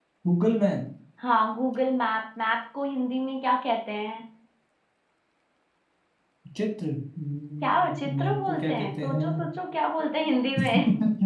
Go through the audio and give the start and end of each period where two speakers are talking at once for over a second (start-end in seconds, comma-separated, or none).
7.6-9.2